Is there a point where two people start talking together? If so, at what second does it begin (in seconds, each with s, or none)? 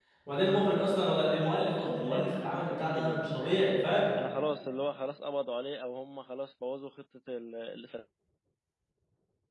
1.6 s